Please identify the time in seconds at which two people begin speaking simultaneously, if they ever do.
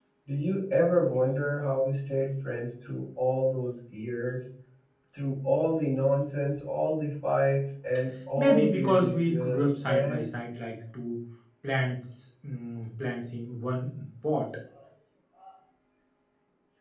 8 s

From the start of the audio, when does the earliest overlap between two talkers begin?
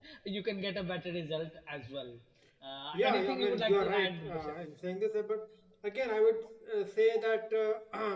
3 s

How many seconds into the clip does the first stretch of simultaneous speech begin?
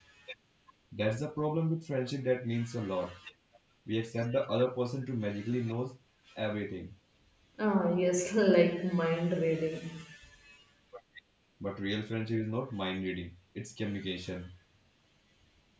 none

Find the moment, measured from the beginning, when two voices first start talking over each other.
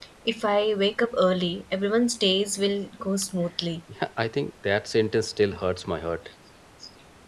none

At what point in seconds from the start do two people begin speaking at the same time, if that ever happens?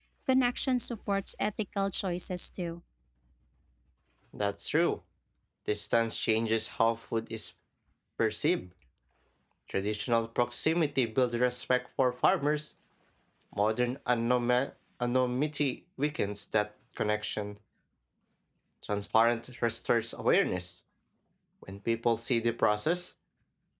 none

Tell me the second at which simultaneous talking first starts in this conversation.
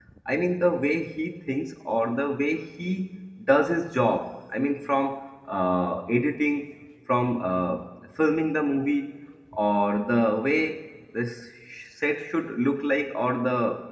none

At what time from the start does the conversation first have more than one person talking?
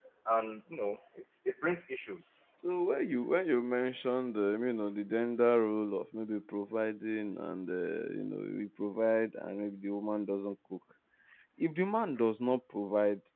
none

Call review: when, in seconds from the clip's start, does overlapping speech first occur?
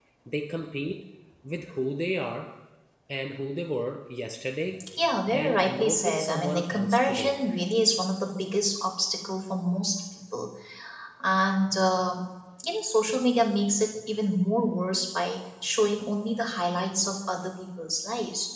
5 s

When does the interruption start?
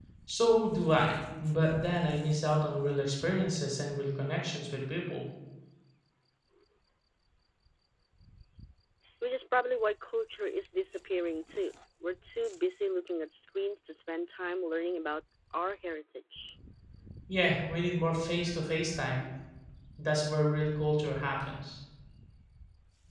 none

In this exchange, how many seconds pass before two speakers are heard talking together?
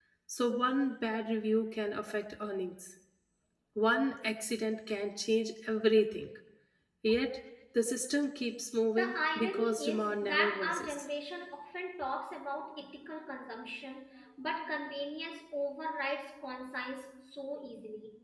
9 s

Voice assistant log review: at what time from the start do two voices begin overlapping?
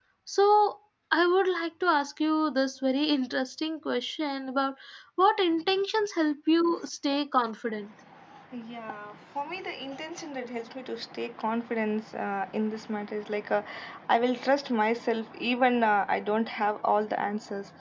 none

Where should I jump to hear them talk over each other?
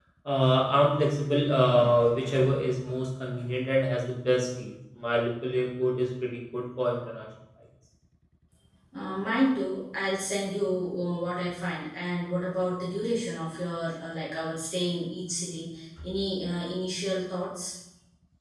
none

